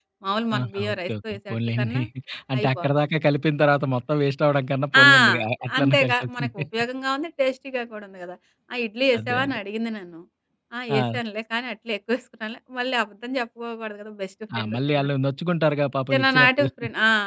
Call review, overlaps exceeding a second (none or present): present